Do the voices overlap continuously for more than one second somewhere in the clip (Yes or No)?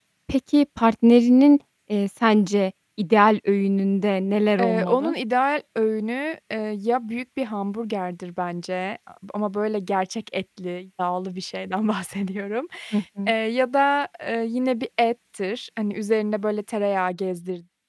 No